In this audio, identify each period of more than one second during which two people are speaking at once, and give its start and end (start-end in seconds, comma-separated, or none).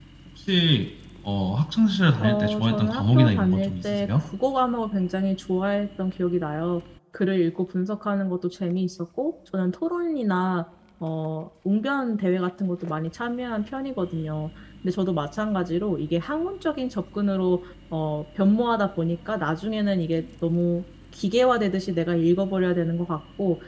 2.2-4.1